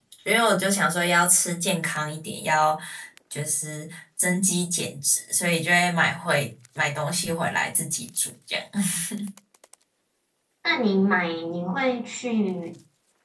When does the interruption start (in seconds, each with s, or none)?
none